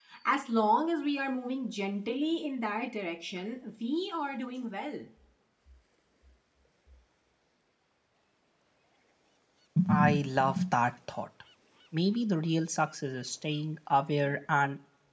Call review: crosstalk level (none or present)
none